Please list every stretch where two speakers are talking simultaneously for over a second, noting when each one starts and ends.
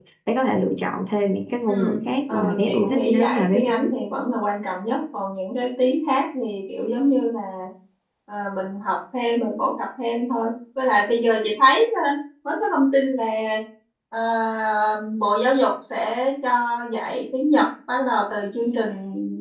2.3-4.0

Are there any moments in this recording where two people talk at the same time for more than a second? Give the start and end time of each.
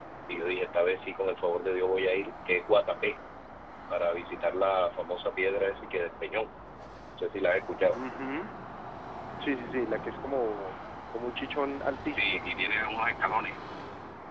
none

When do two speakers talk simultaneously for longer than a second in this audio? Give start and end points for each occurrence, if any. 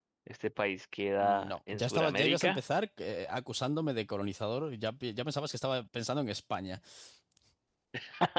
1.2-2.6

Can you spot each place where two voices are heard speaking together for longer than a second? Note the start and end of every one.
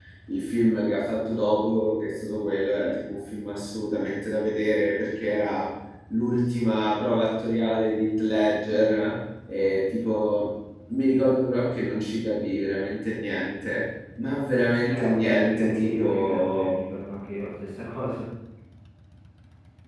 14.9-16.7

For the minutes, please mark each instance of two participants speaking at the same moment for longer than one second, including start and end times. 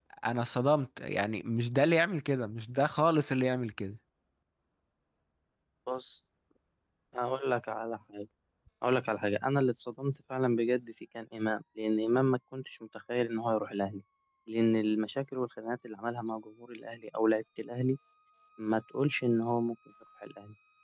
none

